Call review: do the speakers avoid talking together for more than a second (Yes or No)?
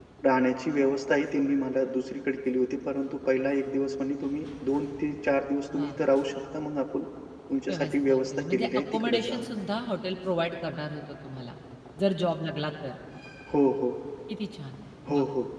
No